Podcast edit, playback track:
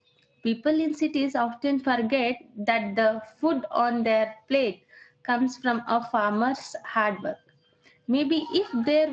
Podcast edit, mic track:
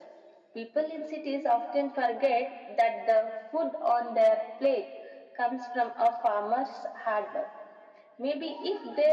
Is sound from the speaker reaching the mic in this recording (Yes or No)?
Yes